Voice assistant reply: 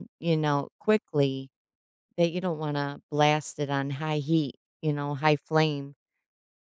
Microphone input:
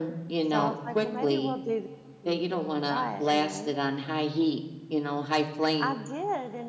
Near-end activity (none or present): present